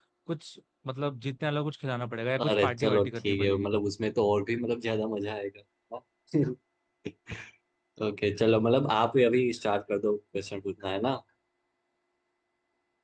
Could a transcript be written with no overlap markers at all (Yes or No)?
No